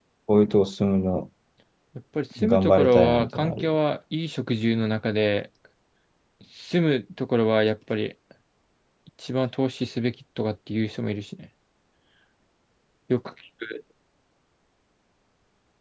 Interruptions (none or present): present